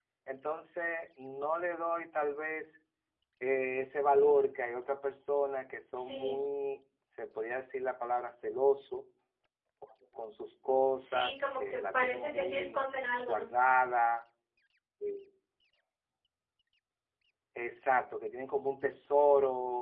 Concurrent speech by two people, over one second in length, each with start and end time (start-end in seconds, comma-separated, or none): 11.1-12.8